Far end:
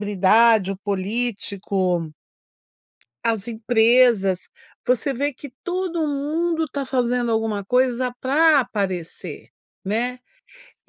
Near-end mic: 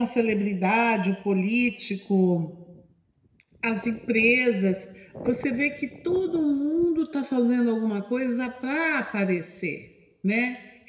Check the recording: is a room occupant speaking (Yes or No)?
No